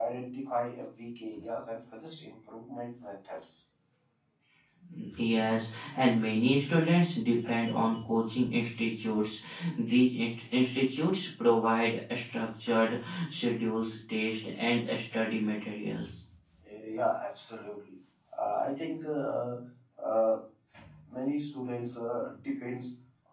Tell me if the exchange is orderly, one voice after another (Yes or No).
Yes